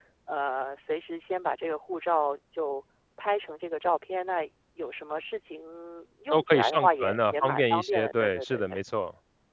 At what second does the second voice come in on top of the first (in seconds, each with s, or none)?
6.3 s